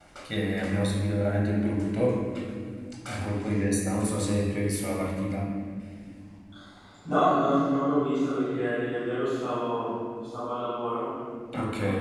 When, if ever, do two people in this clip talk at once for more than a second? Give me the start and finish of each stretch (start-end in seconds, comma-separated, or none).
none